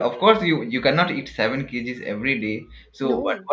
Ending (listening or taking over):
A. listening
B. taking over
A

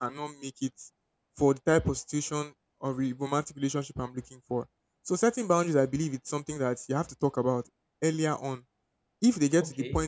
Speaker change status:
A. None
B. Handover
A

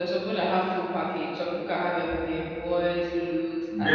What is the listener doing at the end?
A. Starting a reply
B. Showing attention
A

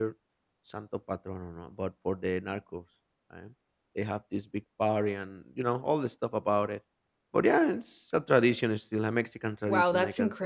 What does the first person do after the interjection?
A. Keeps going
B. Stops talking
B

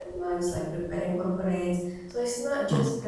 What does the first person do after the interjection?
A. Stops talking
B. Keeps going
B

